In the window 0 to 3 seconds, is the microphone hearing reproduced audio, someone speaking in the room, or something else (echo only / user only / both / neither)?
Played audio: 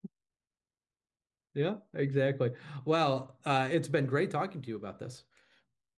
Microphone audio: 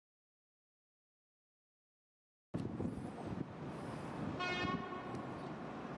neither